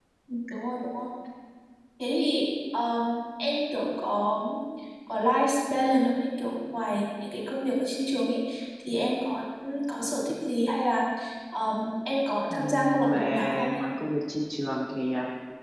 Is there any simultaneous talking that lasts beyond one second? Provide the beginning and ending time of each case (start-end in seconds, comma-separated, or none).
12.4-13.8